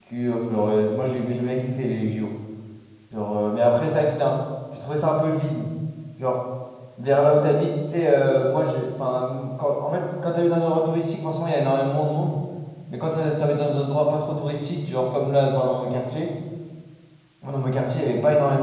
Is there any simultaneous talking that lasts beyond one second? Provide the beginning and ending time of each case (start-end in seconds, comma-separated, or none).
none